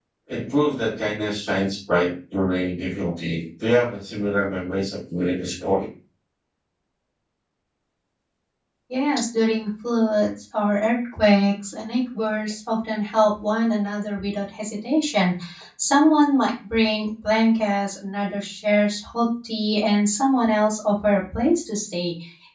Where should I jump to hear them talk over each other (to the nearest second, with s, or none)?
none